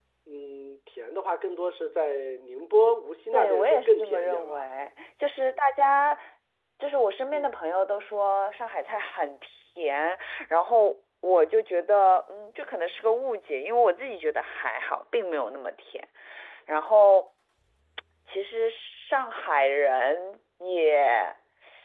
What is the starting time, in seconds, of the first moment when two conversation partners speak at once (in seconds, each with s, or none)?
3.3 s